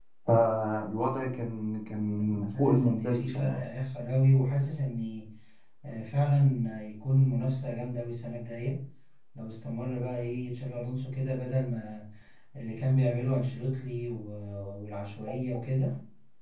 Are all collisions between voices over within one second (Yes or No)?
No